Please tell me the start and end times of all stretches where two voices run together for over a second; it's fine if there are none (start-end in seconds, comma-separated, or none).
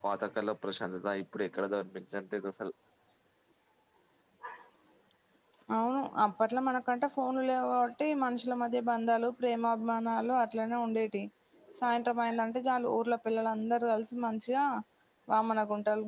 none